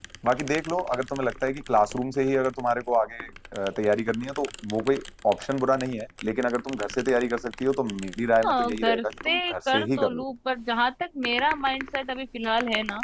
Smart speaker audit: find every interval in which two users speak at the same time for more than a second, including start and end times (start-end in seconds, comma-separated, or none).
8.4-10.2